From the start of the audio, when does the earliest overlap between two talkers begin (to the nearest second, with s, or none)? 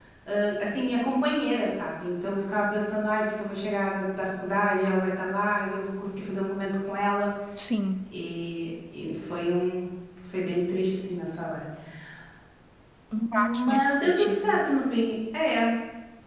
13 s